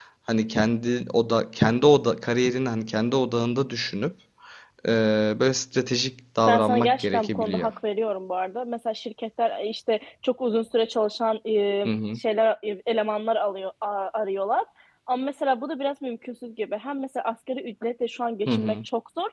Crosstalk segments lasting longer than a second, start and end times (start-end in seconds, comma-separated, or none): 6.5-7.7